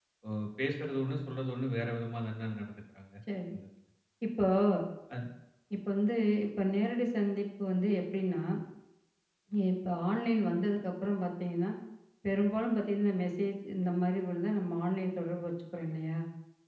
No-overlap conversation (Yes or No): Yes